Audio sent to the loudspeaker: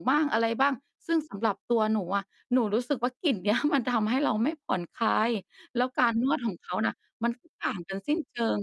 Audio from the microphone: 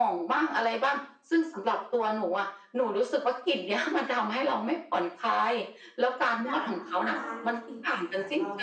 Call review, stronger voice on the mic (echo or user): echo